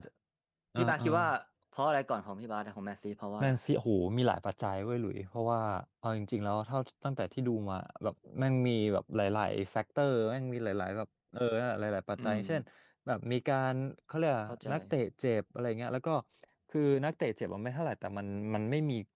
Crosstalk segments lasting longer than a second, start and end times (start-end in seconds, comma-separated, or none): none